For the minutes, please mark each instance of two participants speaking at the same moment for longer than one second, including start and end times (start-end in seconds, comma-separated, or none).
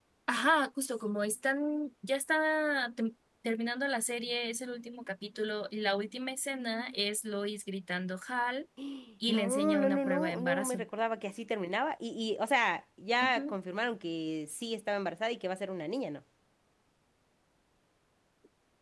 9.3-10.8